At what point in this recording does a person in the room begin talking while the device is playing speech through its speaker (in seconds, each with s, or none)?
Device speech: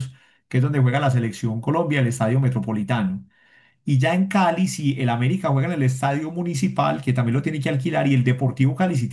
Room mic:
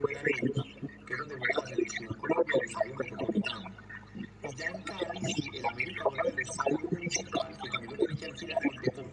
none